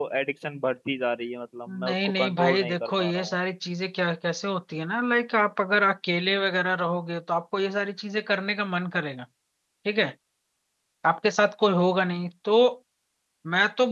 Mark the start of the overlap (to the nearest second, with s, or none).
2 s